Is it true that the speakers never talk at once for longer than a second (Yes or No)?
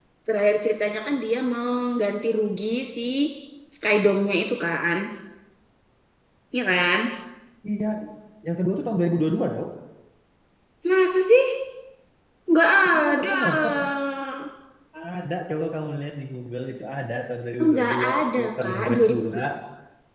No